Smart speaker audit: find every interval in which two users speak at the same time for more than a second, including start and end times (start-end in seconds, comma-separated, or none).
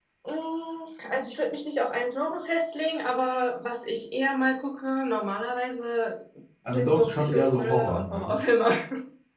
6.7-8.3